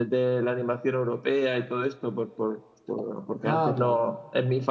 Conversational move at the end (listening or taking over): listening